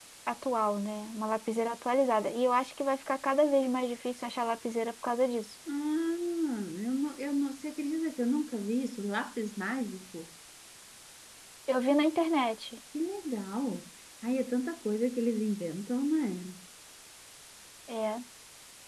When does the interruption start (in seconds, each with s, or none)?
none